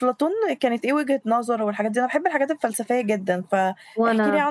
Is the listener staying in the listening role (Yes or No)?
Yes